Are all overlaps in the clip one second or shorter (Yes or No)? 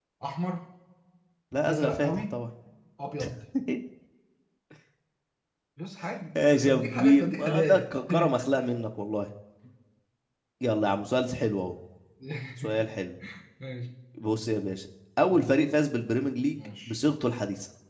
No